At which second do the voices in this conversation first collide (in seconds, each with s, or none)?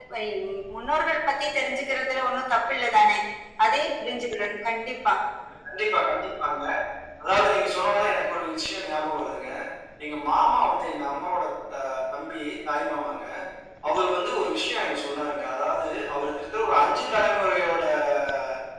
none